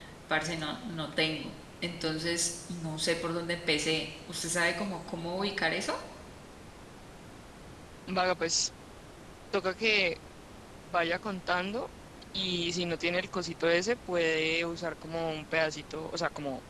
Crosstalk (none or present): none